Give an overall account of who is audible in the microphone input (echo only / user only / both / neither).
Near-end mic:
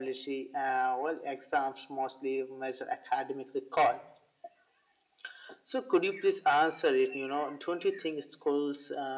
echo only